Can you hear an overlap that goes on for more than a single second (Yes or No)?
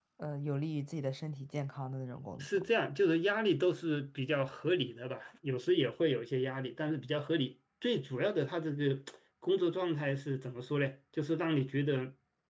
No